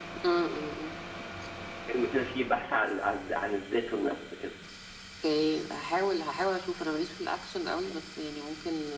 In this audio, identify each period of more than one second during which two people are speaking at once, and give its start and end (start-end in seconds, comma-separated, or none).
none